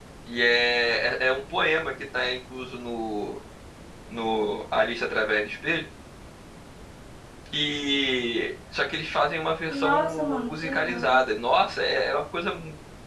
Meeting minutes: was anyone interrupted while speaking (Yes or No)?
Yes